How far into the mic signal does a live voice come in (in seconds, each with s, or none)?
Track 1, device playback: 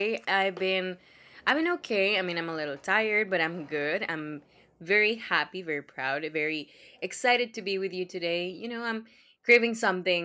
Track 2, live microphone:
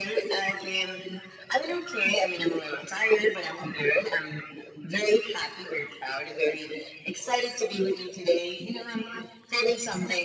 none